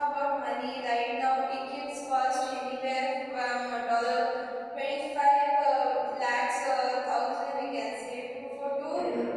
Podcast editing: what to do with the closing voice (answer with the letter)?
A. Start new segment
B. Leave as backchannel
A